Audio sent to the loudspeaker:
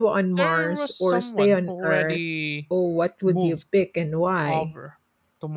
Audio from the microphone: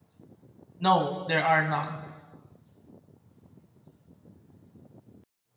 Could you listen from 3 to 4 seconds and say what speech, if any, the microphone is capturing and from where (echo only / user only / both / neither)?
neither